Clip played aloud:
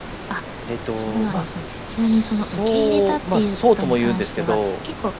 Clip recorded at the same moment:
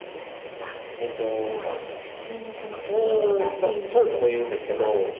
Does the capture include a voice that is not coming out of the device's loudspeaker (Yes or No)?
No